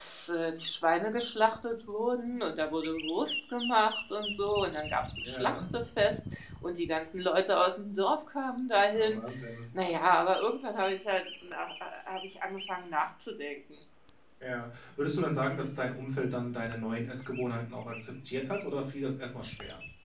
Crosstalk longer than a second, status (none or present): none